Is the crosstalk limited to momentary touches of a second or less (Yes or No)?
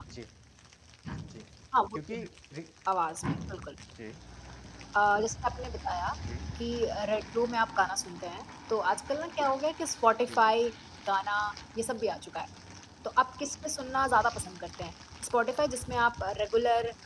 Yes